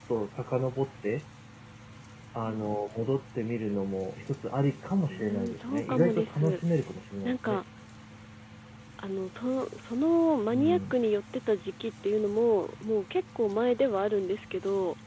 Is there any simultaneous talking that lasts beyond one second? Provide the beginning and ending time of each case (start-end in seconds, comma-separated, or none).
5.1-6.6